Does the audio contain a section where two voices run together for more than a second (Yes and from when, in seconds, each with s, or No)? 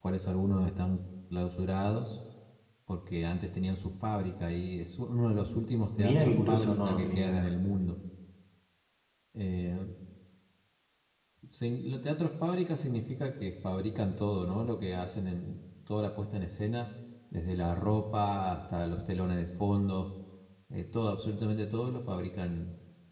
Yes, from 6.0 s